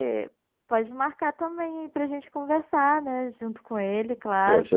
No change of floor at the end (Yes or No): No